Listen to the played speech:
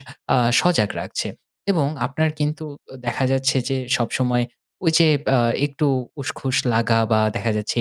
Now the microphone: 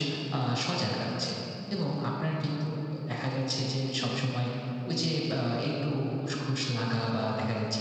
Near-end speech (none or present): none